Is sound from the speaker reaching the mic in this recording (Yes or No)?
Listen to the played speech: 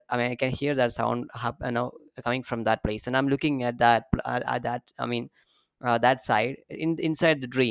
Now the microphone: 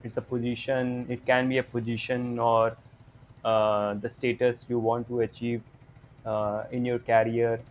No